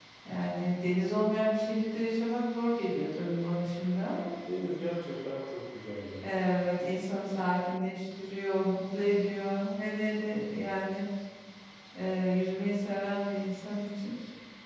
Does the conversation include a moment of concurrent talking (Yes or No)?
No